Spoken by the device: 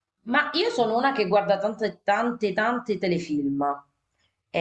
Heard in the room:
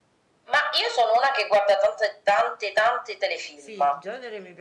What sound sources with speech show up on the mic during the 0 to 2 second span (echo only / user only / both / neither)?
echo only